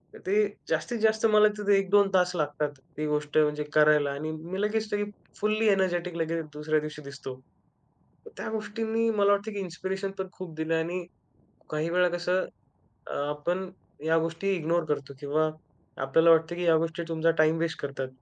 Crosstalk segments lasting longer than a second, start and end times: none

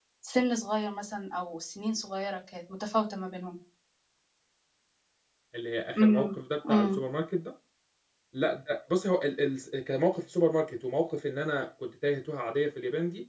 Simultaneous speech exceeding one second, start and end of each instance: none

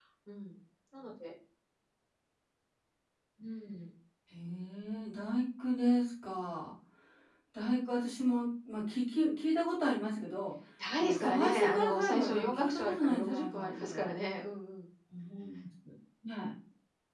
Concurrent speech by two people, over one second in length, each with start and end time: 11.0-14.1

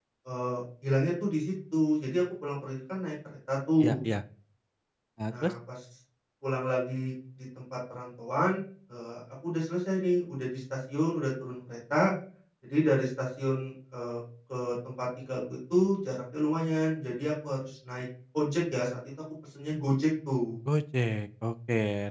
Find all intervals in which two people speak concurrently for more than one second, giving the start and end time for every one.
none

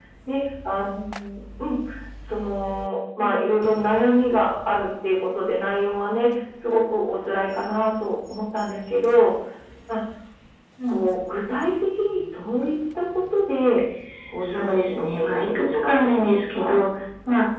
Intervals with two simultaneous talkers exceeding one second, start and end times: 14.4-16.8

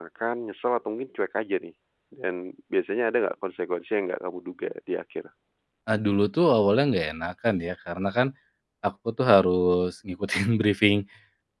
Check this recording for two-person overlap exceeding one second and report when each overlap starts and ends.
none

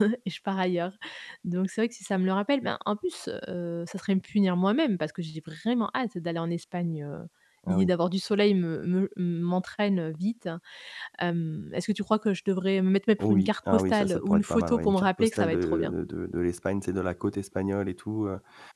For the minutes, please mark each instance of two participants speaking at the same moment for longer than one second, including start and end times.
13.2-15.9

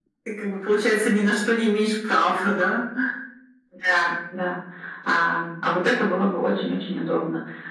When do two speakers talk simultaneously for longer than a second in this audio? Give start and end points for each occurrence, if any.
none

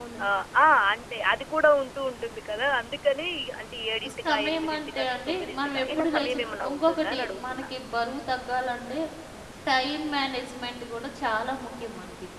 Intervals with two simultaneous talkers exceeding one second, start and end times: 4.0-7.7

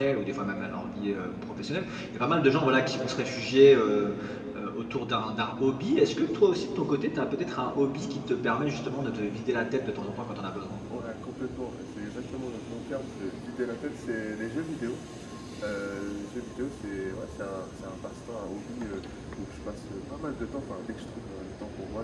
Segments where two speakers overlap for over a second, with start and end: none

